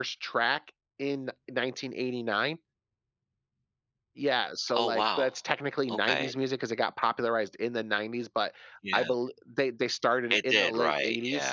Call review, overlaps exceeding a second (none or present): present